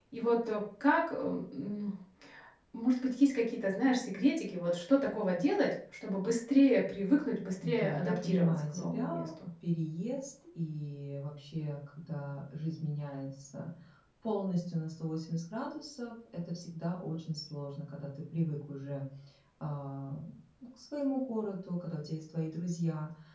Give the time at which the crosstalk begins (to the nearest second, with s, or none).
8 s